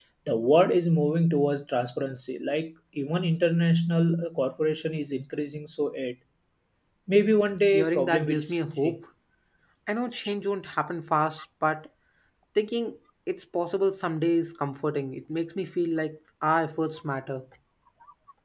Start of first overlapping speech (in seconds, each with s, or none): 7.7 s